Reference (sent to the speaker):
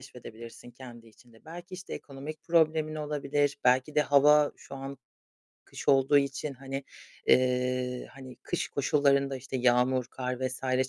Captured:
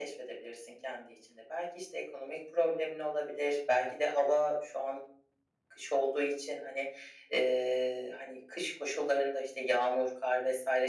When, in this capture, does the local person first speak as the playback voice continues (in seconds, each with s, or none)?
none